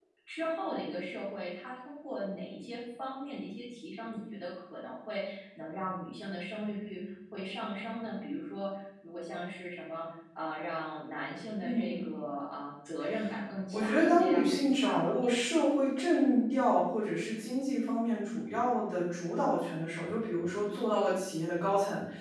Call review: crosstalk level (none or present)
present